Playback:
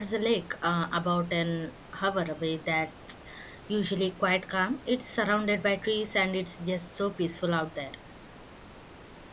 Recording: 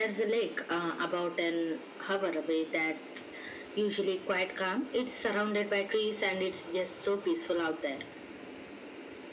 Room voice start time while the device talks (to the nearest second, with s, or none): none